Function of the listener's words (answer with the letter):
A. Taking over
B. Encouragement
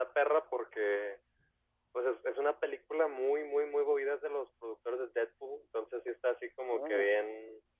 B